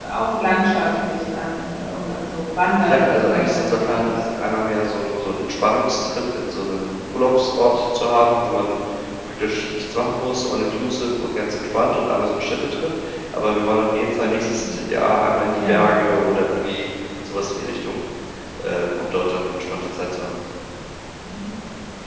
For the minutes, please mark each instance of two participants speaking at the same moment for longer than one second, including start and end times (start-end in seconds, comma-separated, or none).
2.8-4.1